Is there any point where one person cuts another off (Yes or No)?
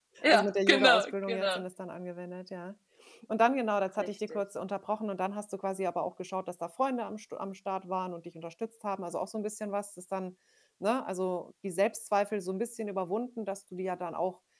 Yes